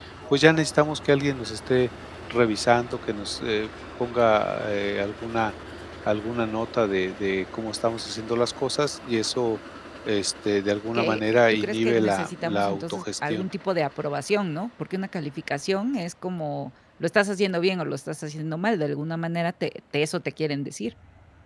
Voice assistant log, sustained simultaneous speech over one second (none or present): present